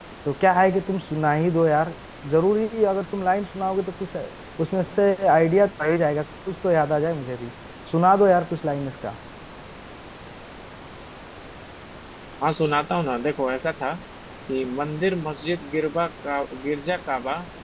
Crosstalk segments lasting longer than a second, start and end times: none

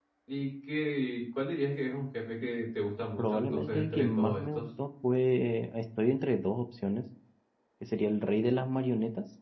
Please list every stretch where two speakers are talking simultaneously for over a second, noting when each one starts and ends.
3.2-4.6

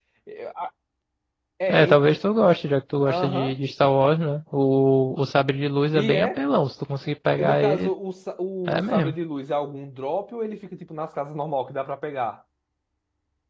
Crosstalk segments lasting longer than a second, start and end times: none

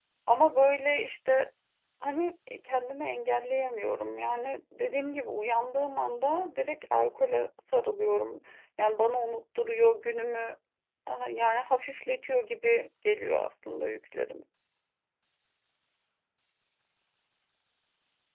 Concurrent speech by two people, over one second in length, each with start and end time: none

